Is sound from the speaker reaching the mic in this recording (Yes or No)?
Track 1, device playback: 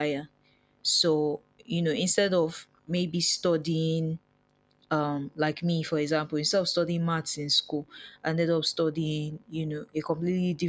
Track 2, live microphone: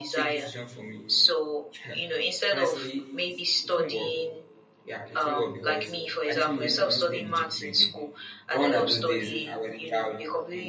Yes